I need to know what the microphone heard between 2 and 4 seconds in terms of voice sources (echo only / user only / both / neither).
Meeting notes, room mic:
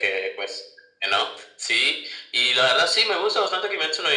echo only